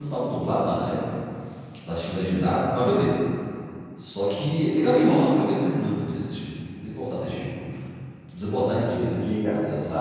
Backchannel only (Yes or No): No